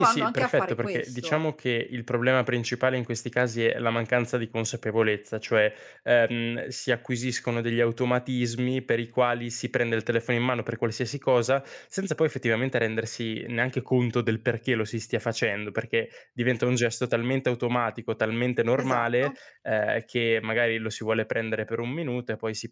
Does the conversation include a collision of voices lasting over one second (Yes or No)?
Yes